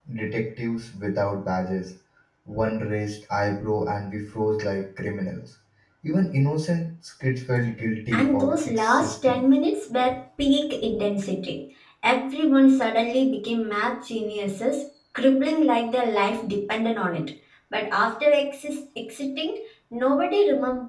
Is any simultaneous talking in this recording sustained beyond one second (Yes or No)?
Yes